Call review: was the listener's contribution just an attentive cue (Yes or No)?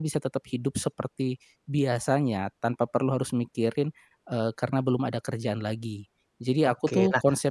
No